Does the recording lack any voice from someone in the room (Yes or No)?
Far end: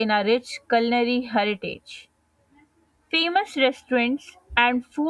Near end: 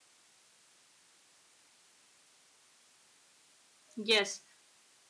No